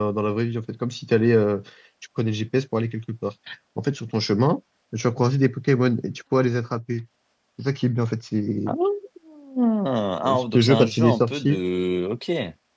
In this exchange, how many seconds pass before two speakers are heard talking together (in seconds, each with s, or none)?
10.2 s